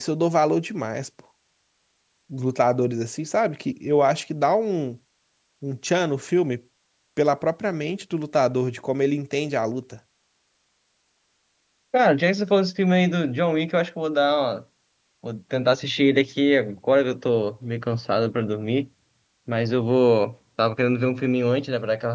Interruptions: none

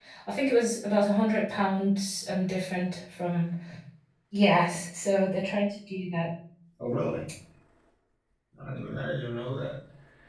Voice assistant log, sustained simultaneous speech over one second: none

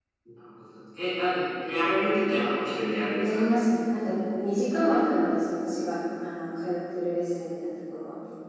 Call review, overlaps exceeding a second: none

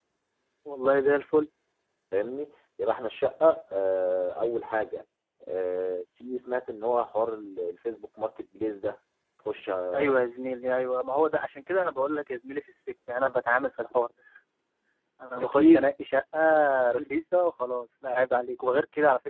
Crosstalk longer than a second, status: none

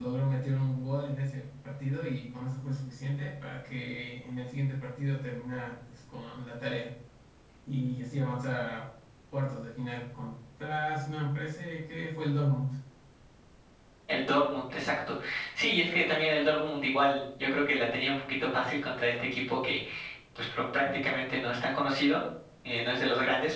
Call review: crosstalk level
none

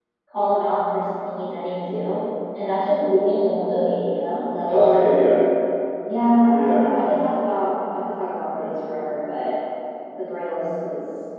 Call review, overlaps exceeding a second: none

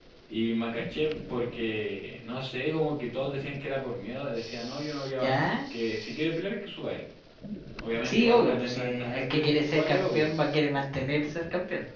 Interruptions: present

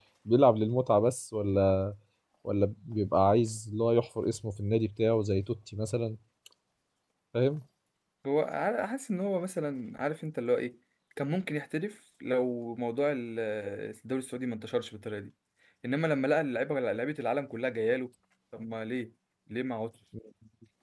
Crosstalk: none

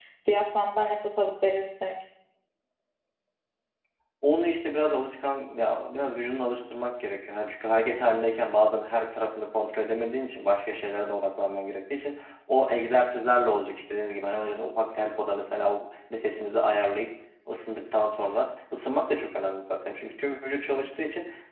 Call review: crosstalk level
none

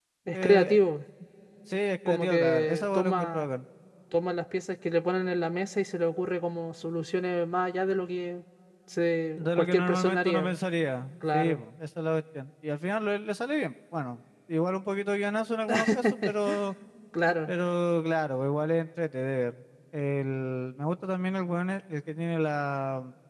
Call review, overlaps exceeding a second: present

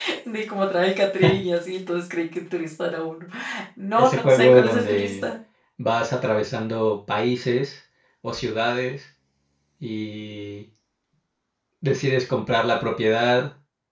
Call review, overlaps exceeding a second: present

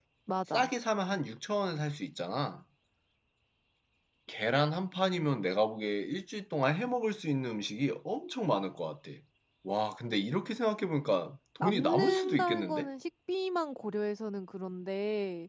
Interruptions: present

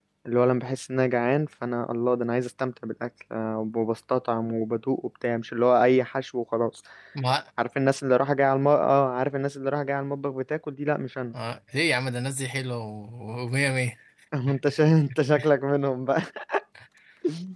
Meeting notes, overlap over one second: none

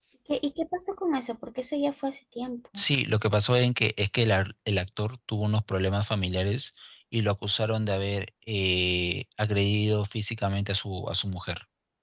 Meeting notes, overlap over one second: none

